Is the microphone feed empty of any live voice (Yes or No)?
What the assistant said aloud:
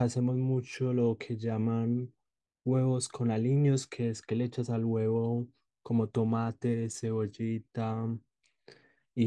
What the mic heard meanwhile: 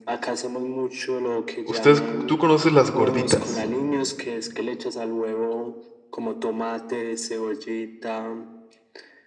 No